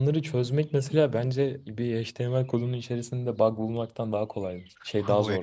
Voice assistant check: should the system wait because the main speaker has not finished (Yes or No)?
No